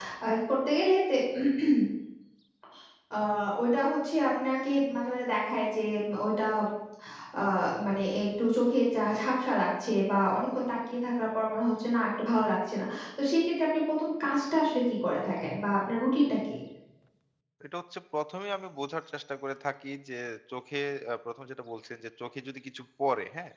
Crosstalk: none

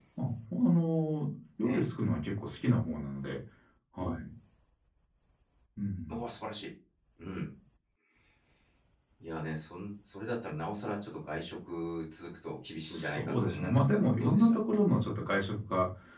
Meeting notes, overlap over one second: present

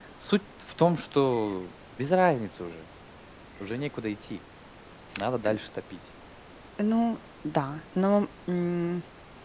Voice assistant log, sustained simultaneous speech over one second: none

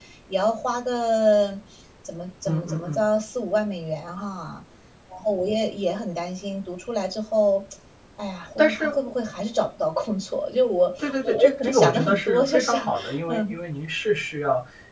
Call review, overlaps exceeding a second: present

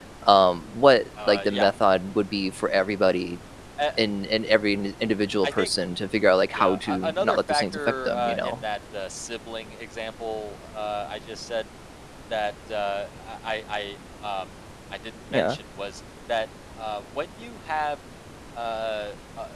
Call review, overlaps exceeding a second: present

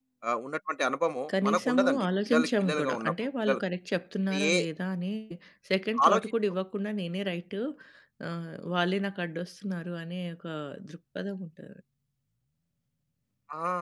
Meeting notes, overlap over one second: present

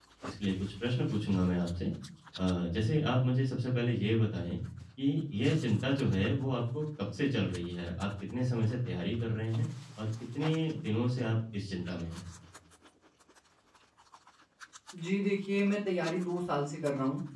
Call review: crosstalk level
none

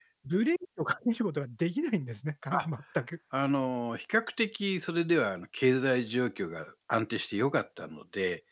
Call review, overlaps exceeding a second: none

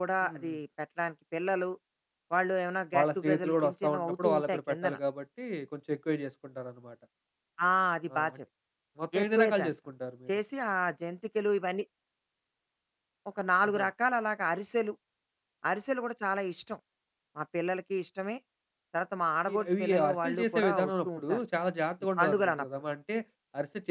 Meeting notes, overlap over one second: present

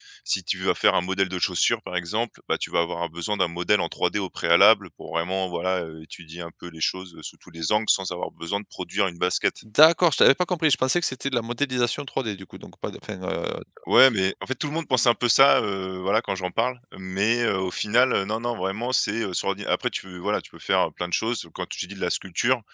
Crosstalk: none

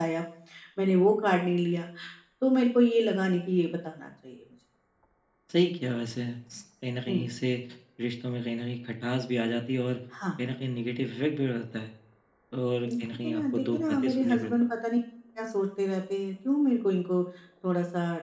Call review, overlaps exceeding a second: present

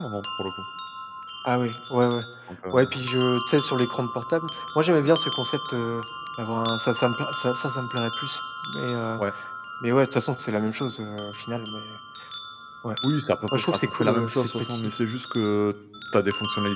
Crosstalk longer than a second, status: present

